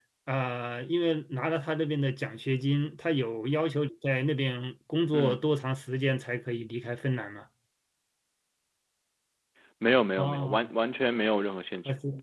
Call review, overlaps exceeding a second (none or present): none